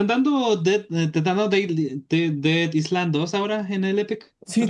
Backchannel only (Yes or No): No